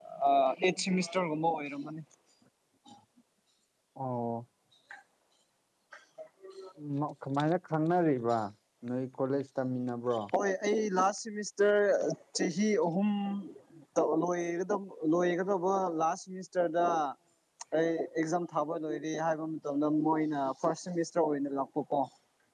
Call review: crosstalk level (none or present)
none